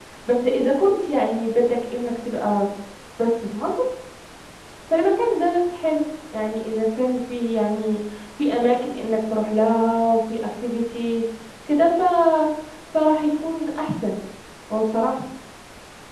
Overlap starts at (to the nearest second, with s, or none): none